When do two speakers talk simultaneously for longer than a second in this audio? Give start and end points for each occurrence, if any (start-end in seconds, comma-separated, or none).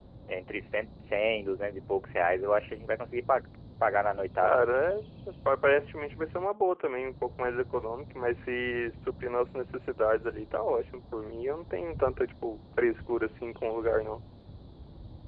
none